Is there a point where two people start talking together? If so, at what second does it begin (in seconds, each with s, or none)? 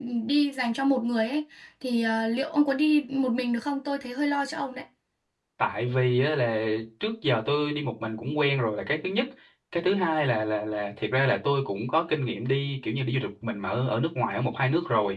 none